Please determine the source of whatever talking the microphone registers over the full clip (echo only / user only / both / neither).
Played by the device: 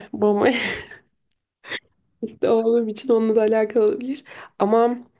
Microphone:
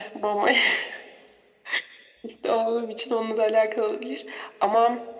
echo only